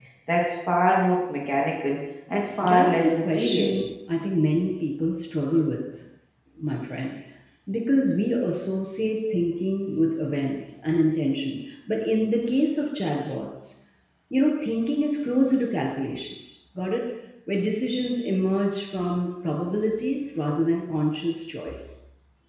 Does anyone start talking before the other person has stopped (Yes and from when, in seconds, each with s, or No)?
Yes, from 2.6 s